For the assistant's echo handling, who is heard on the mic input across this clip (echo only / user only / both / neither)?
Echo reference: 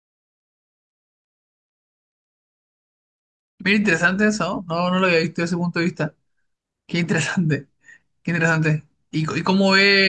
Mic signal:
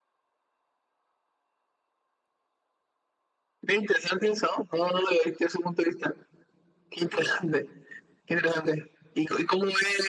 echo only